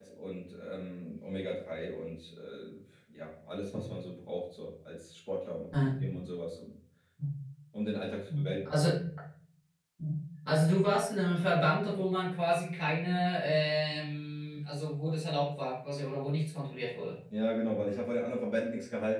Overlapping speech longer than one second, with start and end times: none

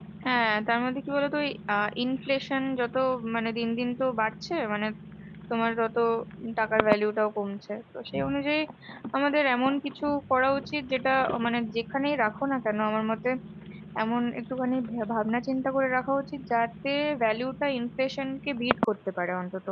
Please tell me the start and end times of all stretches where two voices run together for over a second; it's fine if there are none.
none

